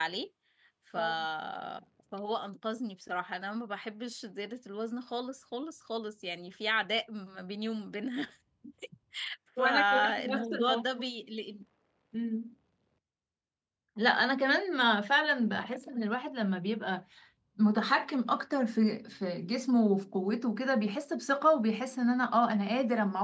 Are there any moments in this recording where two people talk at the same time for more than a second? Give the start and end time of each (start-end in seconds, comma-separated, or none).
9.6-10.8